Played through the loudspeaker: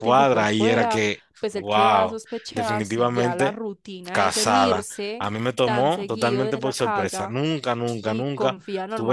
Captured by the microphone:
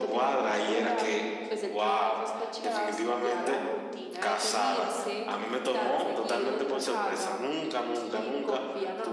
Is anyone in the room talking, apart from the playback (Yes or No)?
No